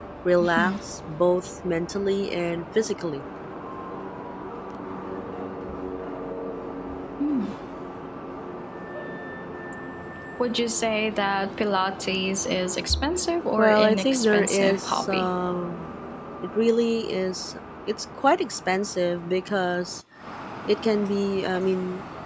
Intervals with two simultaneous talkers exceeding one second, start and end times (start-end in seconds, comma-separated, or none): 13.6-15.3